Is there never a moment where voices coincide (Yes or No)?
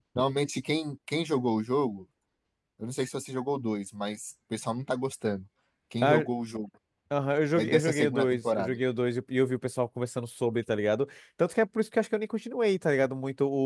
No